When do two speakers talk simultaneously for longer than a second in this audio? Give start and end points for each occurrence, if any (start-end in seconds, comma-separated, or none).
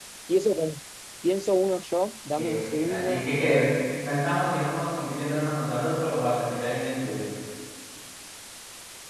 2.4-3.9